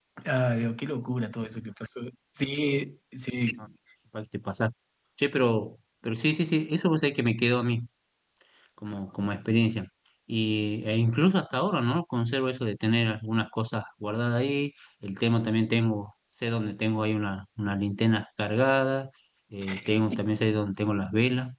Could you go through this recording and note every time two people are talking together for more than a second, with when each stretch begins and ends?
none

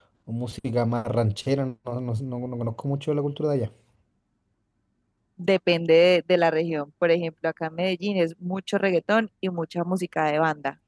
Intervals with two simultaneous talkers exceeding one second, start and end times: none

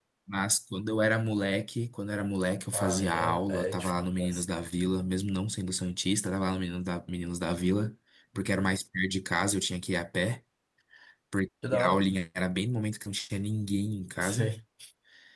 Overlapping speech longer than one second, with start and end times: 2.7-4.5

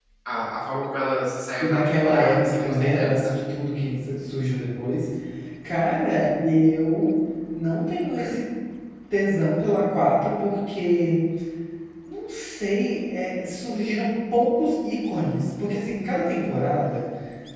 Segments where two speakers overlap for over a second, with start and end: 1.6-3.4

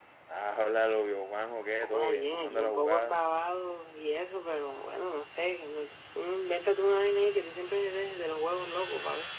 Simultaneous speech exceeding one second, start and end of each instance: 1.8-3.2

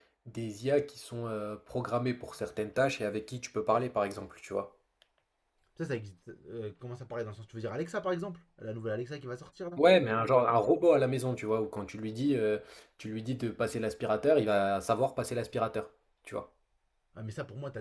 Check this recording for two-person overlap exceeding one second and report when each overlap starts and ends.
none

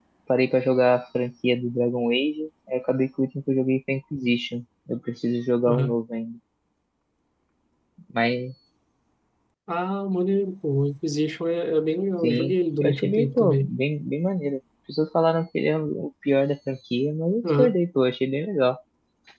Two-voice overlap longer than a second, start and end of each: 12.2-13.7

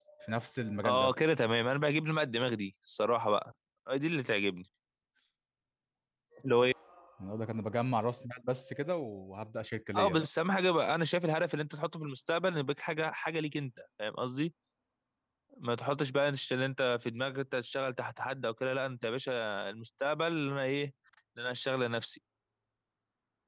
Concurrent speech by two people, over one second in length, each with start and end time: none

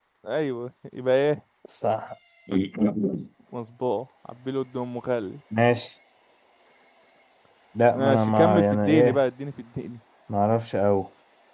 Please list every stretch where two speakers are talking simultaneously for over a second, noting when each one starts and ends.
7.9-9.2

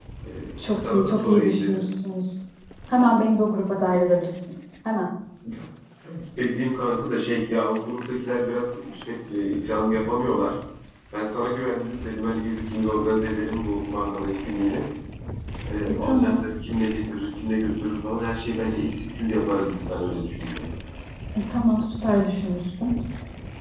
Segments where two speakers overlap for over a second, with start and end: 0.6-1.8

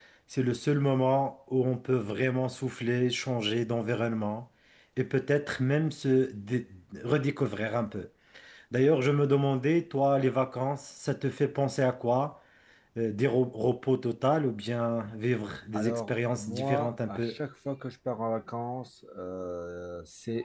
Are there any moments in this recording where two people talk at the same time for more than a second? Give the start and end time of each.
15.7-17.3

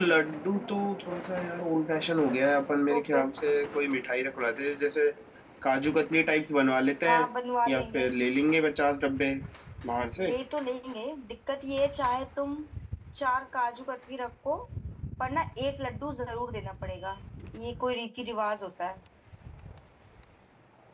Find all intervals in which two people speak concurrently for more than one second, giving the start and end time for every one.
none

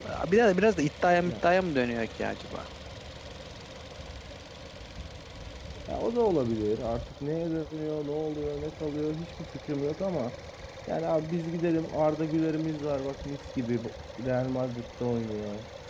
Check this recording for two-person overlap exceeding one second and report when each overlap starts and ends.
none

